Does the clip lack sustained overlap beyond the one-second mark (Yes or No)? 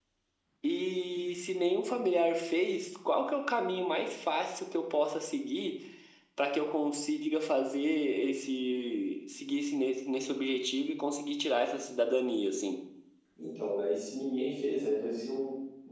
Yes